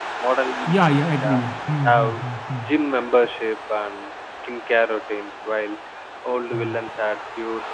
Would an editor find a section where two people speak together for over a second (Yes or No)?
No